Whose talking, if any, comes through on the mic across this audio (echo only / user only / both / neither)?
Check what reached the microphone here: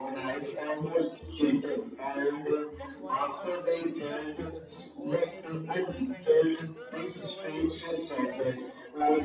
both